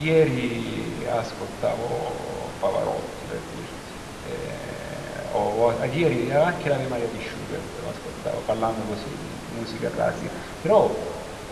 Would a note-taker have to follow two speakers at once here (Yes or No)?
No